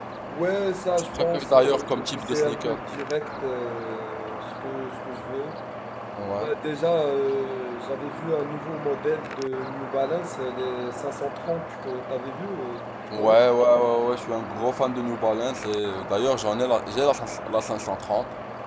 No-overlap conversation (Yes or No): No